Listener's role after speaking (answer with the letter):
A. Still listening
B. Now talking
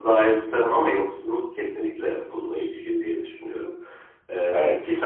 A